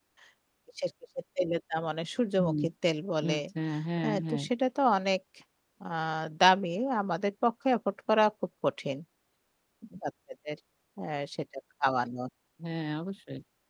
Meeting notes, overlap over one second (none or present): none